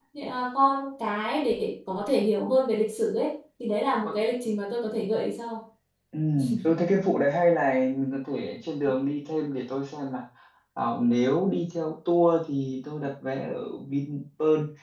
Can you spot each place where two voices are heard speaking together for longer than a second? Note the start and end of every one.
none

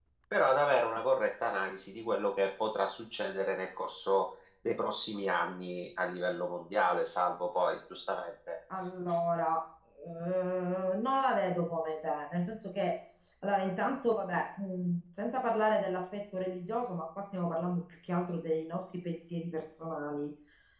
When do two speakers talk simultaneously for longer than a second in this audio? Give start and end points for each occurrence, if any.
none

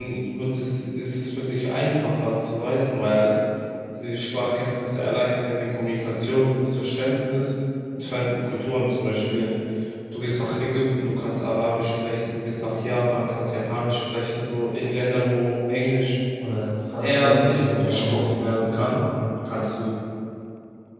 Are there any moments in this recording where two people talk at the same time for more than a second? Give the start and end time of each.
17.0-19.0

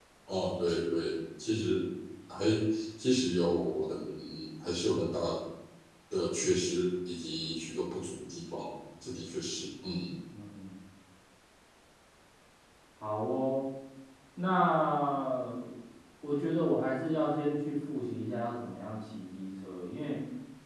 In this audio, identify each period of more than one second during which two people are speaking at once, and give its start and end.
none

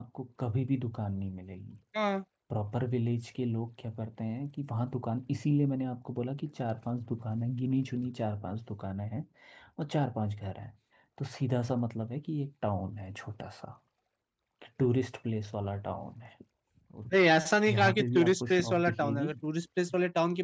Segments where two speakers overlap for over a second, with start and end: 17.7-19.3

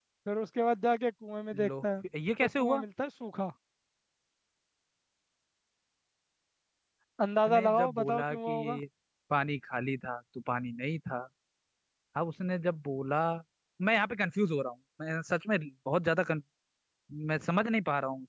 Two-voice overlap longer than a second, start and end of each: 7.5-8.8

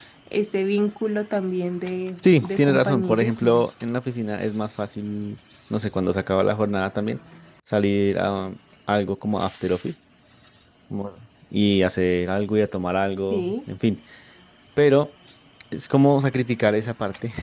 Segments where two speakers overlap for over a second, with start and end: 2.4-3.6

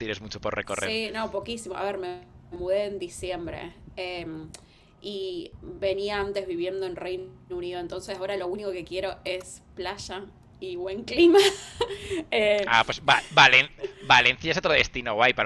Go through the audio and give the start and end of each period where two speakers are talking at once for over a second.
none

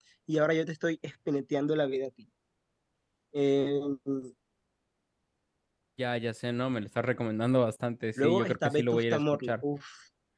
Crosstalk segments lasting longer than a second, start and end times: 8.2-9.5

